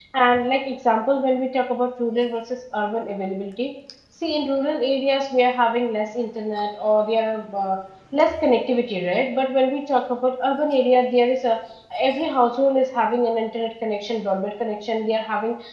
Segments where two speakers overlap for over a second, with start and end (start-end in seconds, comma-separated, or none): none